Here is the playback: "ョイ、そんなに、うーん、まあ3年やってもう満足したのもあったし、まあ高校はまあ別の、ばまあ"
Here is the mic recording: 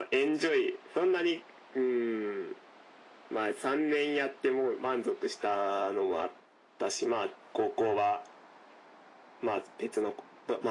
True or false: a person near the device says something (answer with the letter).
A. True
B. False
B